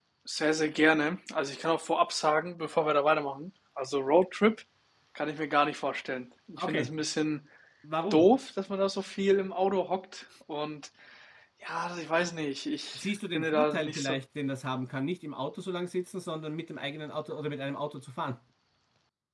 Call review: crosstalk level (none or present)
present